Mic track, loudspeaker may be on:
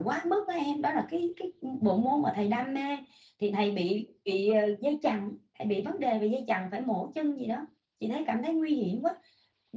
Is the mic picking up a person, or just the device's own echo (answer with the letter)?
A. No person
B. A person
A